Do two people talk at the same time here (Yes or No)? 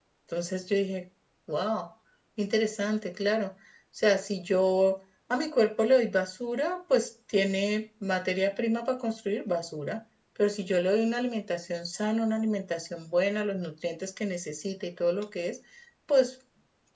No